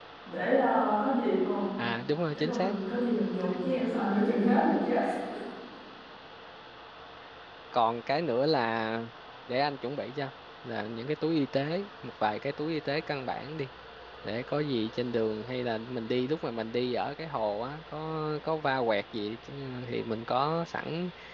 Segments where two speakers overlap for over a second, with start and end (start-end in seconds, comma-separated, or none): none